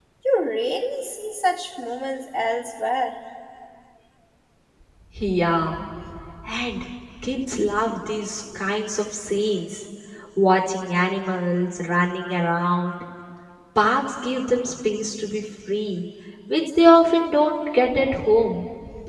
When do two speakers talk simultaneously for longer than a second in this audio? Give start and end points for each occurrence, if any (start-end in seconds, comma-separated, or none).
none